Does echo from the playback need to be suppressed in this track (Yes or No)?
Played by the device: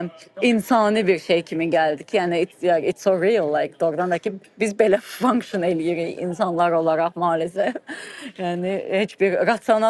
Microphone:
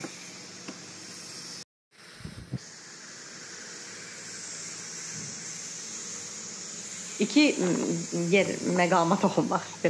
No